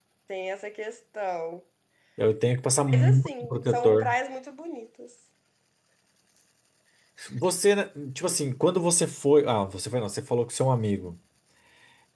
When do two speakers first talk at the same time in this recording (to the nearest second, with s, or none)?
3 s